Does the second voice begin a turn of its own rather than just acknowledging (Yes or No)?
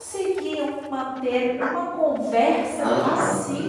Yes